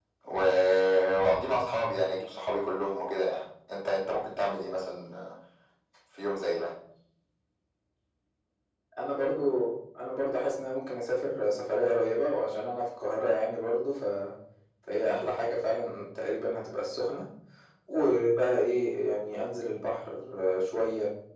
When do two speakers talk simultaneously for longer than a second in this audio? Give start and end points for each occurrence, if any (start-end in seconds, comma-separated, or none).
none